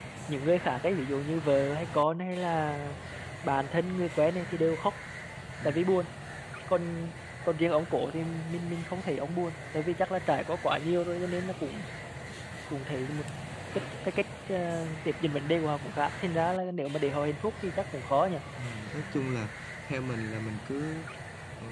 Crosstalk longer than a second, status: none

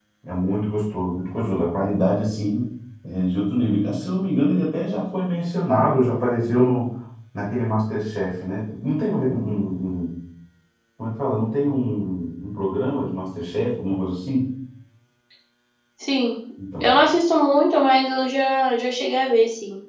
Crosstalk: none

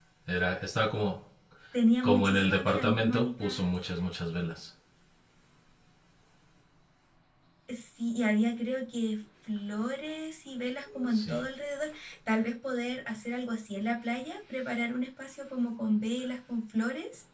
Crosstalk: present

